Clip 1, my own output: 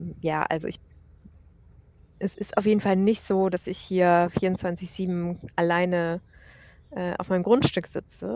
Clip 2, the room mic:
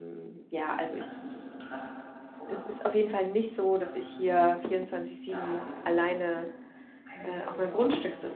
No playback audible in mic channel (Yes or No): No